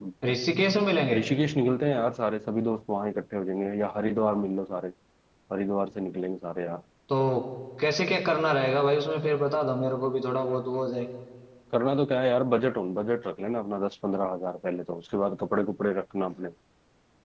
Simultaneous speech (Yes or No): No